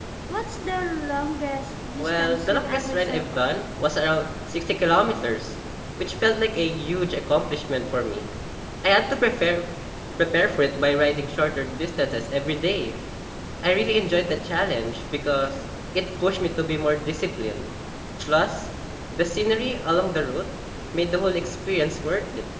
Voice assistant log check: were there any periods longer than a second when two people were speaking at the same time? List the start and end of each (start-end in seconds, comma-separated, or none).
2.0-3.5